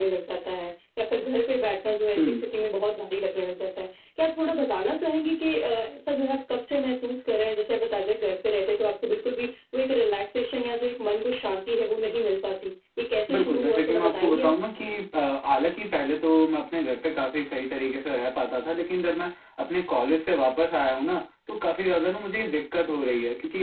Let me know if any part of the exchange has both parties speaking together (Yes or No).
Yes